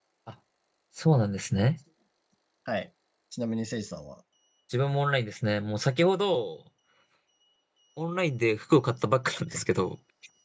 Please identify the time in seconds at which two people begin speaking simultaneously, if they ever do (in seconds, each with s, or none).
none